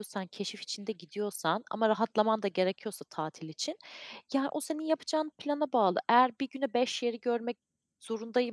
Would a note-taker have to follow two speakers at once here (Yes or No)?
No